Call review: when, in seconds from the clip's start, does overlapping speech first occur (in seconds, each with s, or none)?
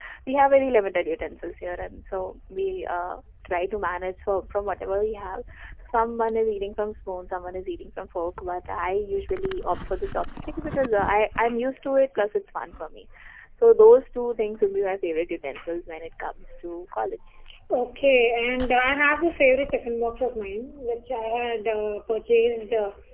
none